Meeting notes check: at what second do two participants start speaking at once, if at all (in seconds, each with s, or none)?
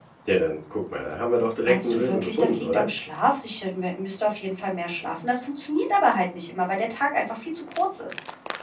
1.6 s